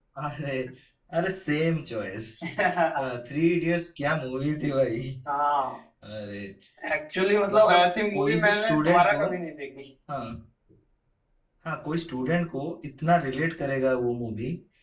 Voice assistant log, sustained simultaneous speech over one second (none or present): present